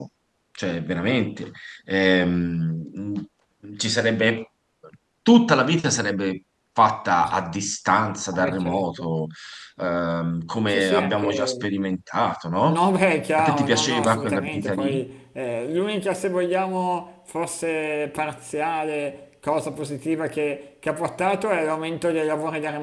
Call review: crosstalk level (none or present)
present